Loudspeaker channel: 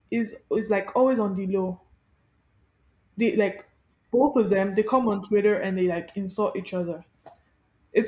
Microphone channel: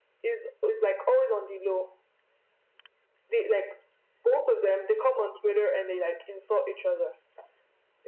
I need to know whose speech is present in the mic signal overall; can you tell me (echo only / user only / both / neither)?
echo only